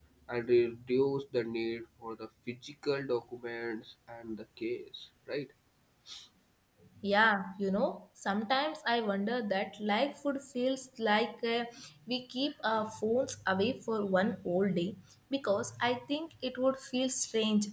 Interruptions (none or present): none